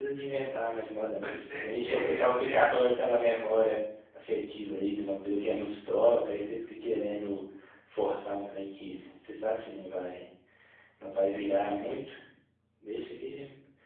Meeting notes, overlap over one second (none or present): present